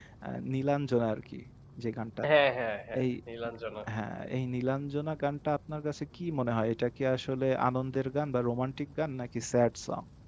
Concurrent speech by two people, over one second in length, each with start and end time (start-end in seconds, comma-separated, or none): none